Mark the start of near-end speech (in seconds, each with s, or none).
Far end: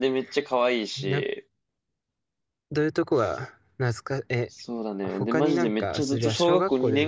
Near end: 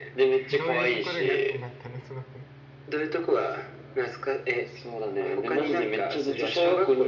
0.5 s